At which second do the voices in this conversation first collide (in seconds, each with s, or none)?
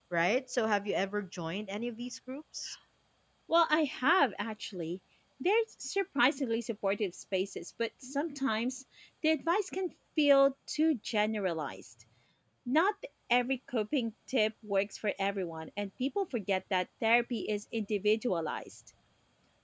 none